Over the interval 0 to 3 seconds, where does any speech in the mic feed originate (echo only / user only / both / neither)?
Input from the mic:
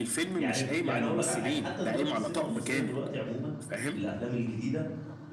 both